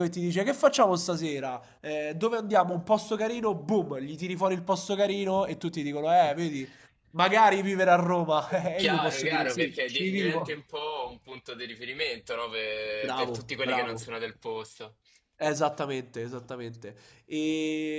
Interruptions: present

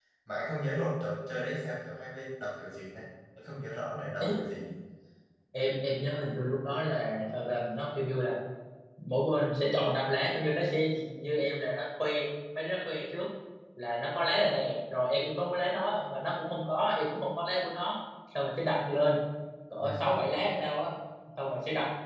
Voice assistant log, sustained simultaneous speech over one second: none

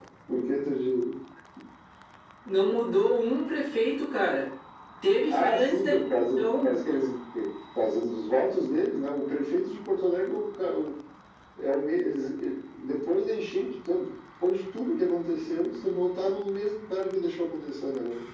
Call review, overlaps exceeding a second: present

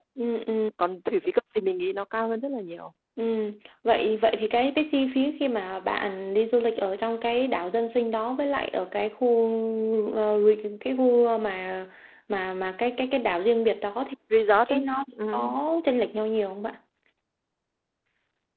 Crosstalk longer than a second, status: none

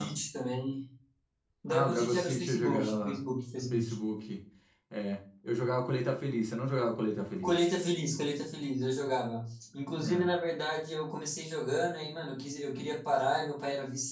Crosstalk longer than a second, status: present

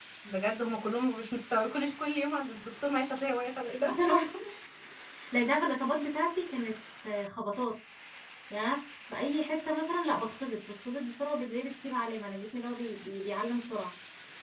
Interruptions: none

